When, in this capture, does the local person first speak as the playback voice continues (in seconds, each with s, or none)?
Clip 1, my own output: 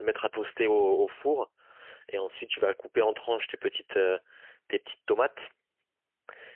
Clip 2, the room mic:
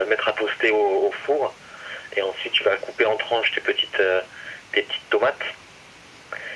none